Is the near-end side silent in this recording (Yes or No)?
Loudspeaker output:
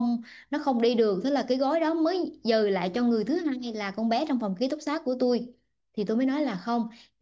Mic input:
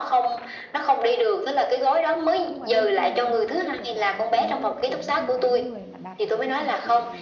No